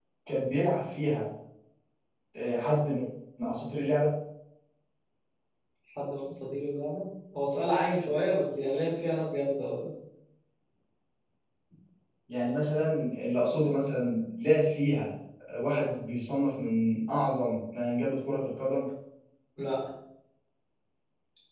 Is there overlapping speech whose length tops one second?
No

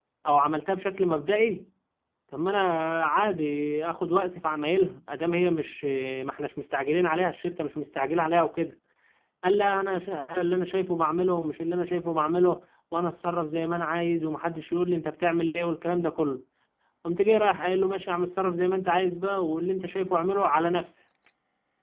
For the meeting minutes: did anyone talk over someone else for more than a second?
No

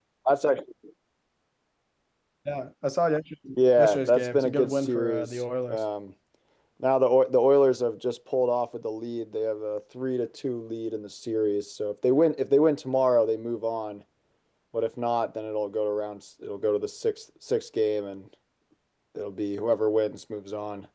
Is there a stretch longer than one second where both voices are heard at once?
Yes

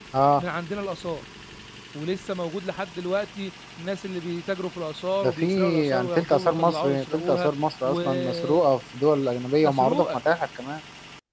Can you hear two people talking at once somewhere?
Yes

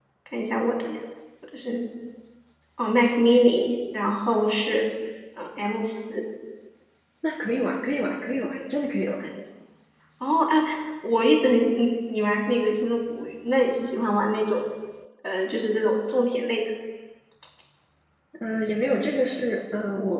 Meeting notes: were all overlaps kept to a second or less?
Yes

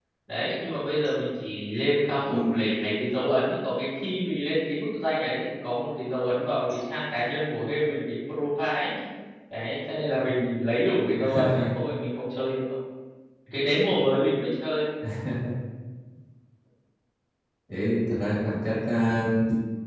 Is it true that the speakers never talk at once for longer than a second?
Yes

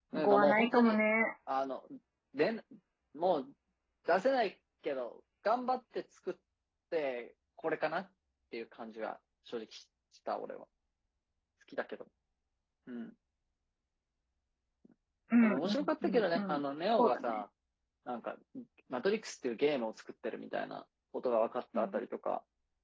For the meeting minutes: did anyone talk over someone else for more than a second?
Yes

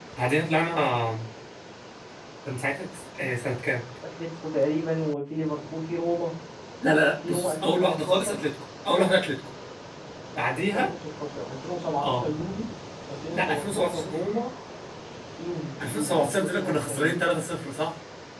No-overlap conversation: No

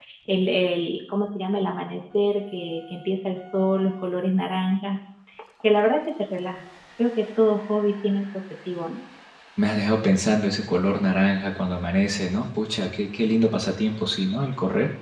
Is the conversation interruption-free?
Yes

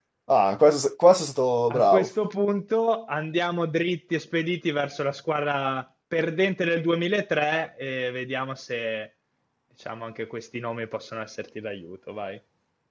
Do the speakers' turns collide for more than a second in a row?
No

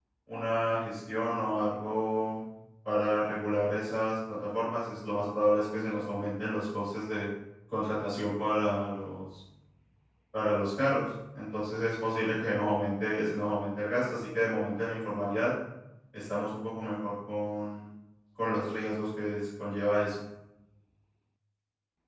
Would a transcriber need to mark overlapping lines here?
No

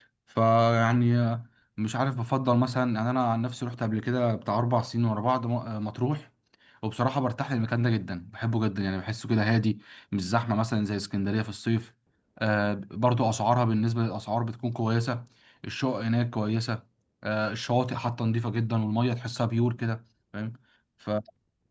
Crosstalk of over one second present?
No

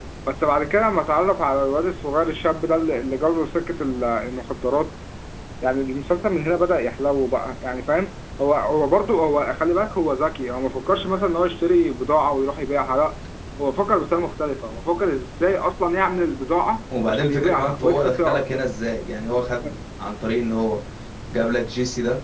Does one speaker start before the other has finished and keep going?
Yes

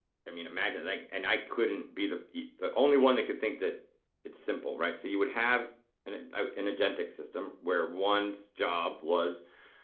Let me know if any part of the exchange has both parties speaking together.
No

